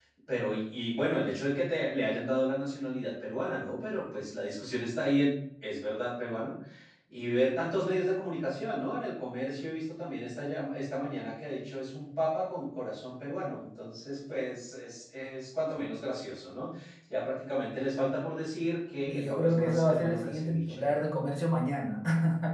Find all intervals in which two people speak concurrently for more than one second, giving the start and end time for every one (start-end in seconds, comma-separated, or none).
19.1-21.0